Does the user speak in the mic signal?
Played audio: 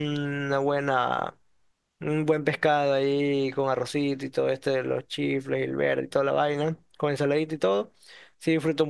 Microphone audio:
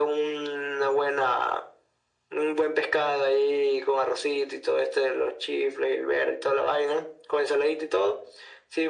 No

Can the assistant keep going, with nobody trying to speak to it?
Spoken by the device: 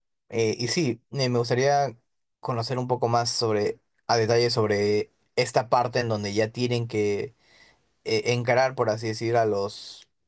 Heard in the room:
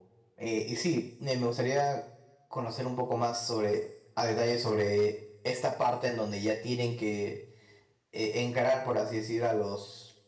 Yes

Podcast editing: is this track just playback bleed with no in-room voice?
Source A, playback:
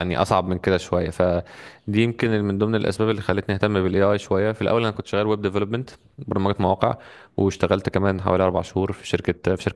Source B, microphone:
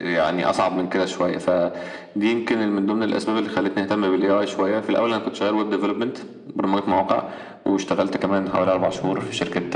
No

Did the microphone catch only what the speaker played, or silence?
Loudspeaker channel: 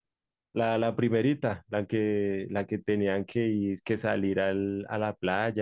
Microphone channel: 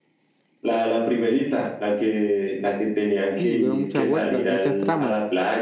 No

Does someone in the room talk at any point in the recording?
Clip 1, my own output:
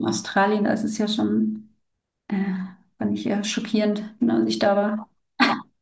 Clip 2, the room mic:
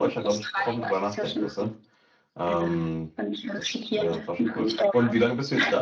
Yes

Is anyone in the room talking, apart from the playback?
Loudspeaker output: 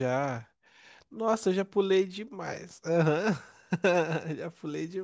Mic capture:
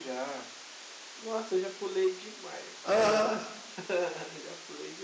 Yes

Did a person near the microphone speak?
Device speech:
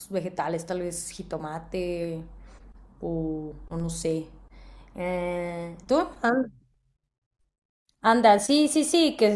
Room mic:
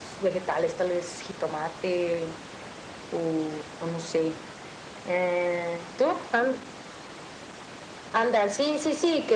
No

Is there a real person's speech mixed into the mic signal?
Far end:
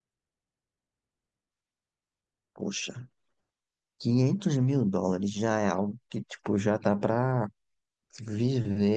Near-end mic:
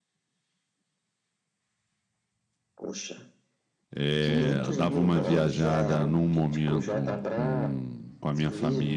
Yes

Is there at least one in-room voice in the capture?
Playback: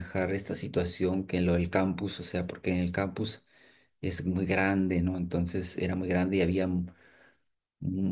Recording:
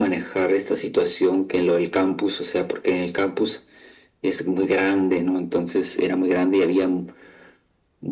No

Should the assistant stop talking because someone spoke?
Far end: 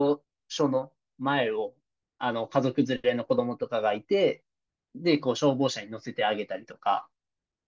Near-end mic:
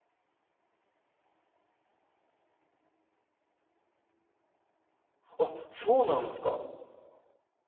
Yes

